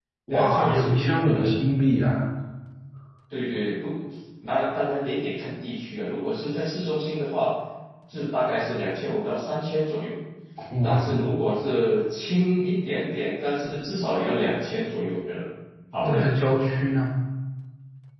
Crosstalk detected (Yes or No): Yes